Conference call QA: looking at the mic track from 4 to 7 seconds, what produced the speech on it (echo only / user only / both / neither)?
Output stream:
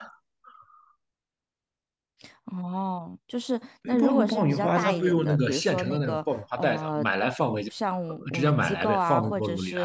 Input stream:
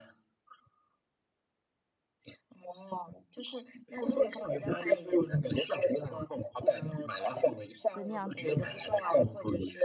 echo only